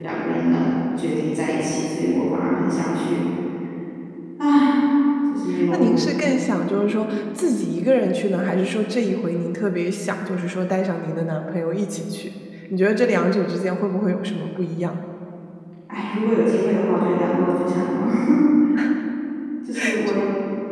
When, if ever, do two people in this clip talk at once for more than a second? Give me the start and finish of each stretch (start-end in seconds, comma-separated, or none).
none